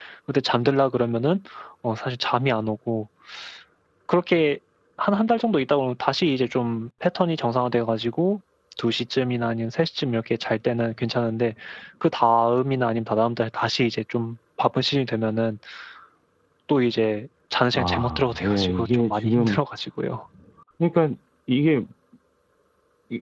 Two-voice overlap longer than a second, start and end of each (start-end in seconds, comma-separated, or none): 17.7-19.6